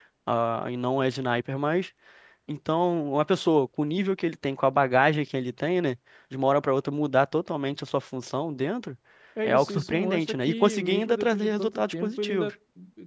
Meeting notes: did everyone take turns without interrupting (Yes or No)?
No